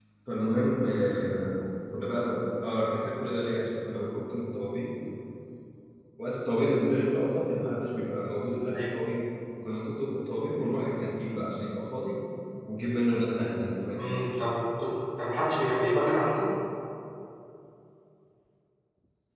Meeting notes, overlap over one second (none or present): none